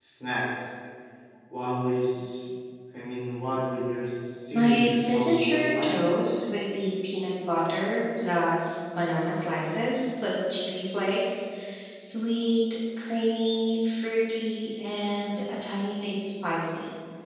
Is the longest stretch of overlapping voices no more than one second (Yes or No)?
No